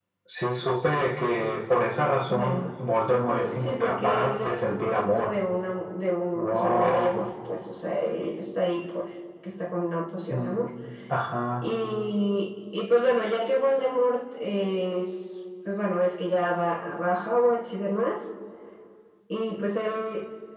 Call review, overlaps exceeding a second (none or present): present